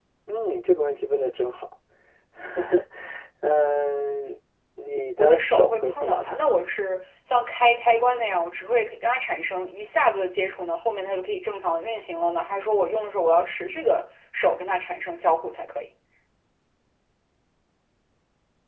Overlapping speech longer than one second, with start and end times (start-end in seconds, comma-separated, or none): 5.2-6.4